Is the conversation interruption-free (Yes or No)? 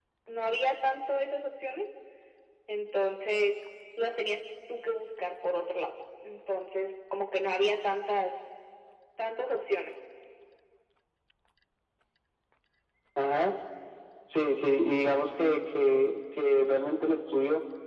Yes